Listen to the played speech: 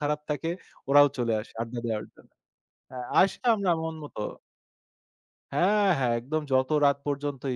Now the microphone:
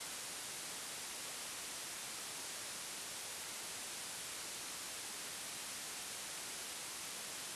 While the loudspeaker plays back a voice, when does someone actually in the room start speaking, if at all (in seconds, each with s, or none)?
none